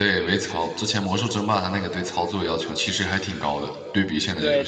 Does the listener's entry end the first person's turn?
Yes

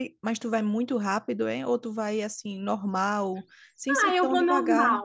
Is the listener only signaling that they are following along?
No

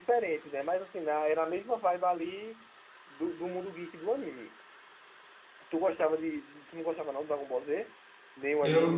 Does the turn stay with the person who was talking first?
No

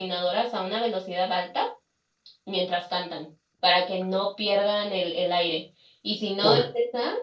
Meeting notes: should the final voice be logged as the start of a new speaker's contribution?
No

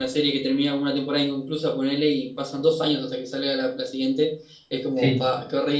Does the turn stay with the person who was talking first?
Yes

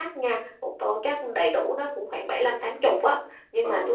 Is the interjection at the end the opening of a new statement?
No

